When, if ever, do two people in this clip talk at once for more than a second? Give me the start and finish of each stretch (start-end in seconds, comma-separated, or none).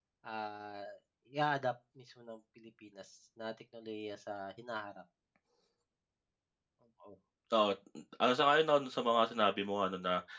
none